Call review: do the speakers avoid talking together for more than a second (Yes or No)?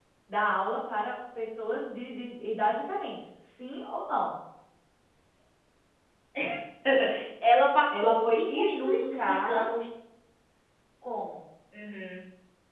No